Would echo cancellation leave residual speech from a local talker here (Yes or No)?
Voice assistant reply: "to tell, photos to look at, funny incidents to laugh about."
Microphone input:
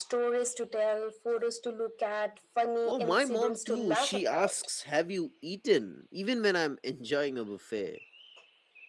Yes